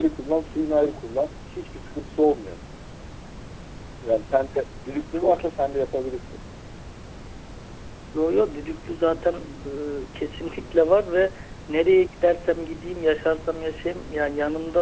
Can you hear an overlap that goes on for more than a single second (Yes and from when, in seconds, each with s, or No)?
No